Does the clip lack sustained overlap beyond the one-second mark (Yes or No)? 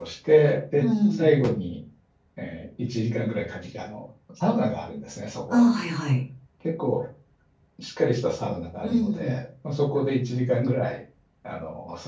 Yes